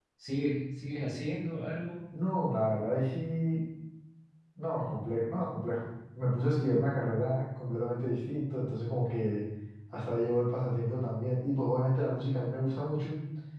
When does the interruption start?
none

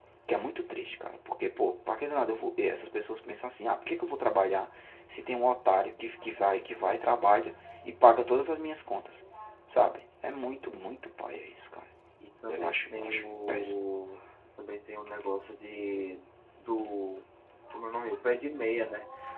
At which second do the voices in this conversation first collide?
12 s

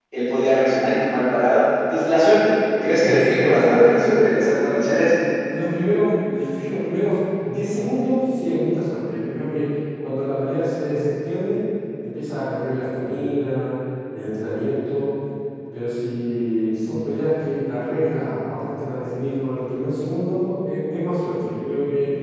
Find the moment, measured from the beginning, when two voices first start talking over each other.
3 s

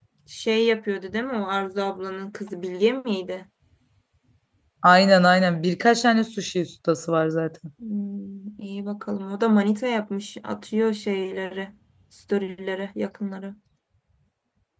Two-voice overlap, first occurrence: none

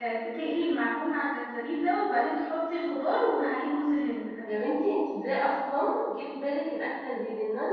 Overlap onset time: none

